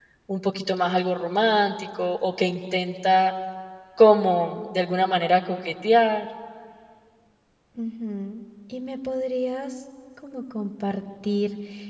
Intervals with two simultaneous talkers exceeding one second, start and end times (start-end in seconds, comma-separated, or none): none